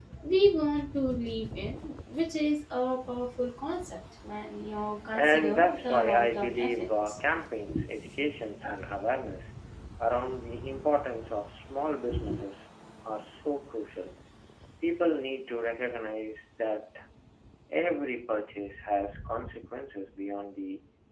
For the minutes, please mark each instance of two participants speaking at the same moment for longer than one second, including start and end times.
5.1-7.2

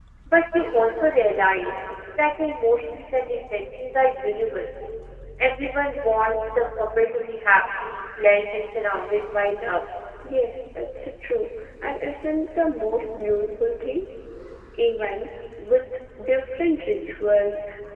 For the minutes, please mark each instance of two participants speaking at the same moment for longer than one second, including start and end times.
none

